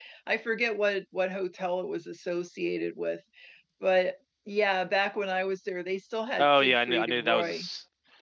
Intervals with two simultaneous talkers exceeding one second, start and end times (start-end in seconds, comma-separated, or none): 6.4-7.6